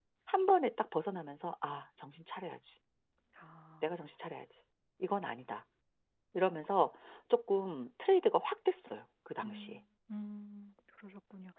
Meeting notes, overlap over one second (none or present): none